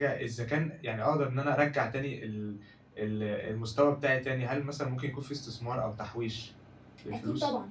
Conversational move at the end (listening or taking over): taking over